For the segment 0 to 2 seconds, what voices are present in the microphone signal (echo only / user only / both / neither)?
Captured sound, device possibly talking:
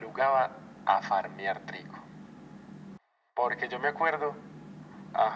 echo only